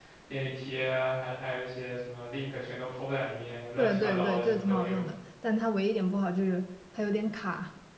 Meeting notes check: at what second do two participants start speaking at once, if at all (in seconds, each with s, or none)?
3.8 s